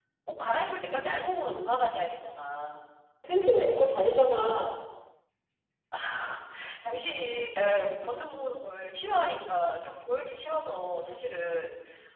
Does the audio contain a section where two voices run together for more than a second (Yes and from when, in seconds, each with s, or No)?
No